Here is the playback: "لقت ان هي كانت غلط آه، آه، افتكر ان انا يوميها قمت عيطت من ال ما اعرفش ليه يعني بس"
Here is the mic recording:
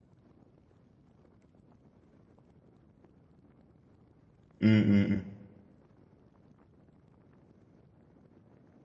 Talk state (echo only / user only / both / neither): user only